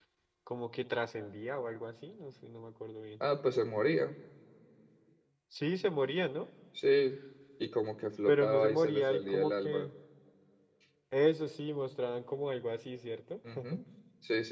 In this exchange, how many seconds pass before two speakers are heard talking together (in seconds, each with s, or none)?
8.3 s